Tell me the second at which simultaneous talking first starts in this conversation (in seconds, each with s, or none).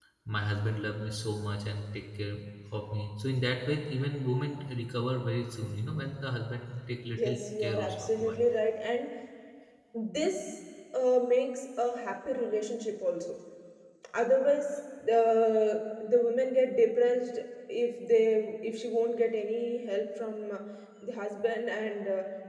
7.2 s